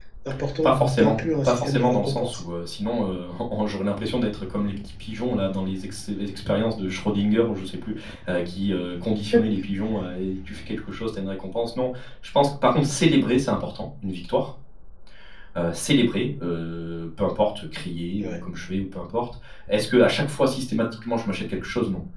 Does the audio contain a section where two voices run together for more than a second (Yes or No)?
Yes